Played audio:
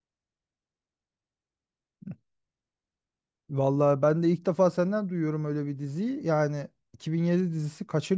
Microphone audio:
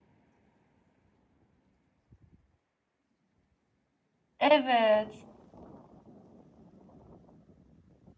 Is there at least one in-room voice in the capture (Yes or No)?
Yes